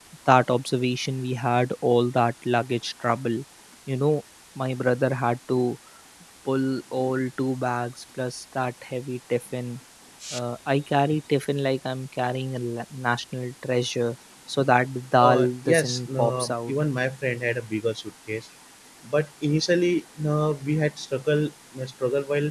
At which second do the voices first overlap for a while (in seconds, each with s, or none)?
15.2 s